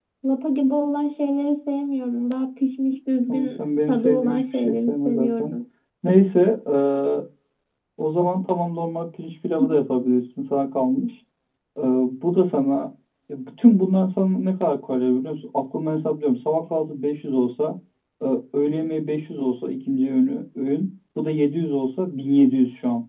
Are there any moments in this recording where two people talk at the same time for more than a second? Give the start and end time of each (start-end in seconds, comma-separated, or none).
3.3-5.5